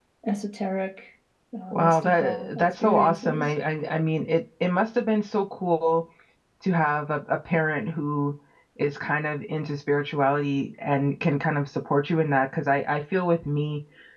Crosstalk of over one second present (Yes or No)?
Yes